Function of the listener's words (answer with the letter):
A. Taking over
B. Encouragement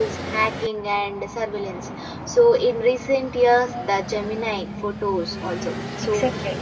A